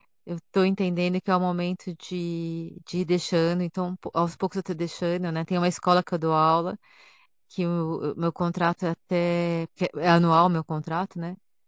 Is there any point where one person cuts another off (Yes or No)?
No